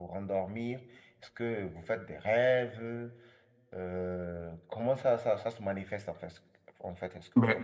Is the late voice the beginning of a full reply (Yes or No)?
Yes